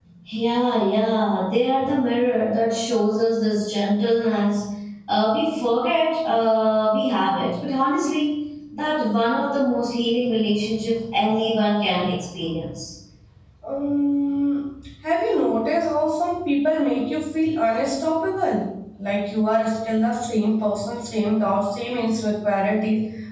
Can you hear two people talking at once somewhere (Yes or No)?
No